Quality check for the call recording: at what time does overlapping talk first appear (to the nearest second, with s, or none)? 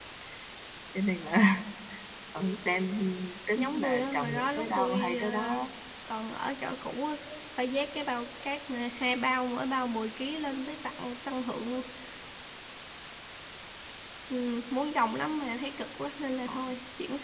4 s